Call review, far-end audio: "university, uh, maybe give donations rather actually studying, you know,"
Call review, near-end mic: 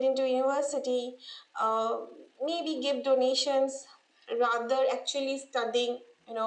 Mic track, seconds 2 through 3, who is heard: echo only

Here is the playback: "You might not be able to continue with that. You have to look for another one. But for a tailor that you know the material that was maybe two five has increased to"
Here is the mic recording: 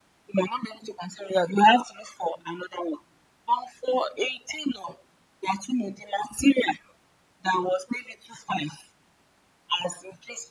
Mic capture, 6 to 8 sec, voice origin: echo only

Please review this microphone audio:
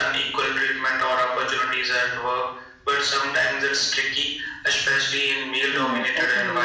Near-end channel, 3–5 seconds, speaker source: echo only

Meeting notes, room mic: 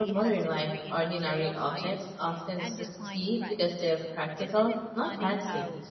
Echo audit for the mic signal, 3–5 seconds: both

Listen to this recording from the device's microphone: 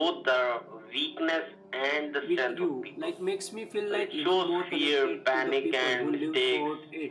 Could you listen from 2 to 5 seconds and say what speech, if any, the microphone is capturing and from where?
both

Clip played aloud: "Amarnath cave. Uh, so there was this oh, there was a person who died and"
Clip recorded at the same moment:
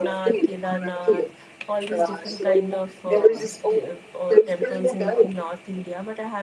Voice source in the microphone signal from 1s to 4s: both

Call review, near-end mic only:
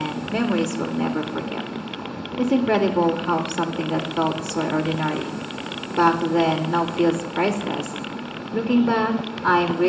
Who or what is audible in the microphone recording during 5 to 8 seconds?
echo only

